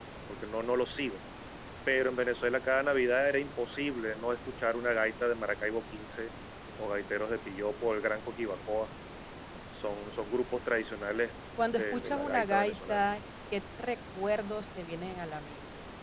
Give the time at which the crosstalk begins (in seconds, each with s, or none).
11.8 s